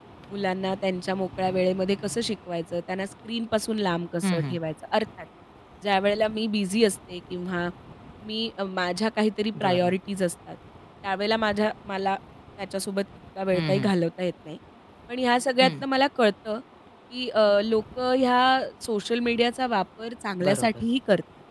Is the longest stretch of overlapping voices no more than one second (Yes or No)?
Yes